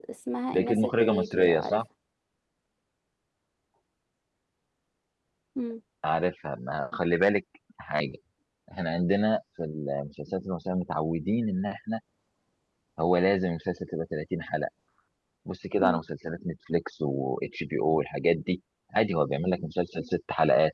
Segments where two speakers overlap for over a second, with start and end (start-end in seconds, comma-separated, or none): 0.5-1.8